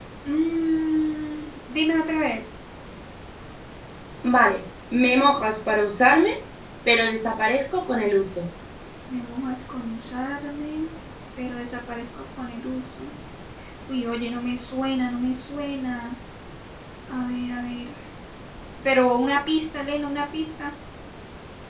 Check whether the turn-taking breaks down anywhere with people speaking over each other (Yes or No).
No